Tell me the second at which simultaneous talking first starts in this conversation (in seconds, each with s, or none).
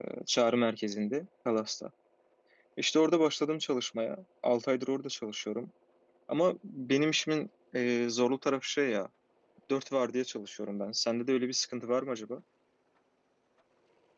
none